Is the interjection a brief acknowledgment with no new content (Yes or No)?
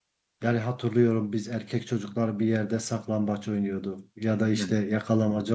Yes